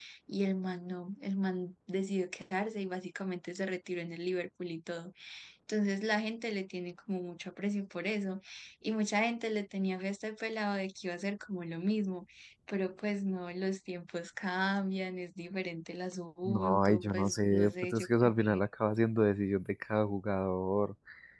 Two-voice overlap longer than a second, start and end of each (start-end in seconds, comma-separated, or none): 16.4-18.3